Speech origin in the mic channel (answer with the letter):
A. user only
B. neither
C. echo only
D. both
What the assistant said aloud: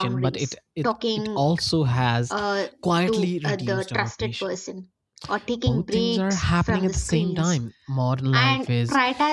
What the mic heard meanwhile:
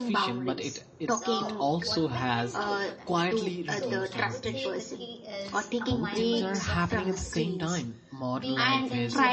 D